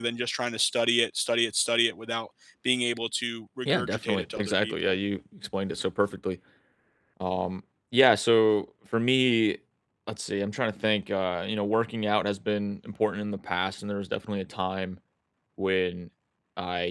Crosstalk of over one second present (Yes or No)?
Yes